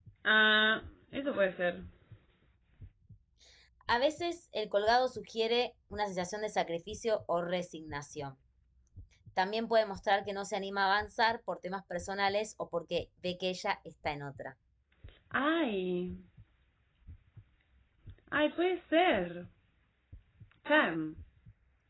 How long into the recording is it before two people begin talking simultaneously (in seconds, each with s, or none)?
none